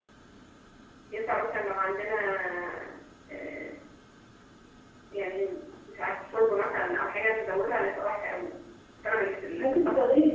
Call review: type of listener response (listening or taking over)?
taking over